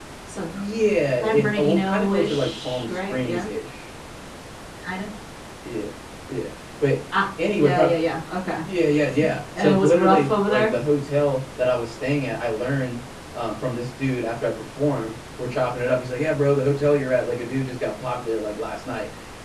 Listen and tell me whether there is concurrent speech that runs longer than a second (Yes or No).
Yes